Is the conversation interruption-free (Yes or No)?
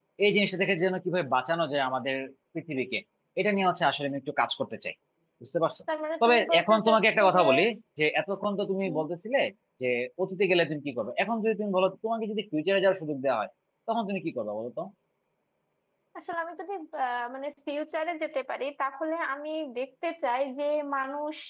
No